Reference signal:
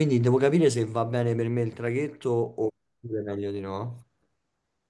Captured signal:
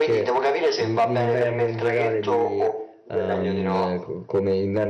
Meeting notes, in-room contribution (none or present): present